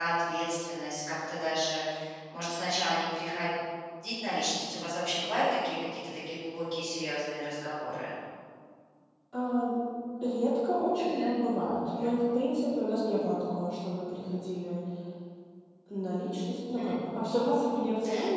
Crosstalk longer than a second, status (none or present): none